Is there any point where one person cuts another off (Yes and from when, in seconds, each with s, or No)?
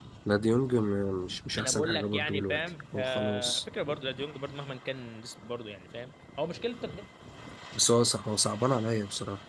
Yes, from 1.6 s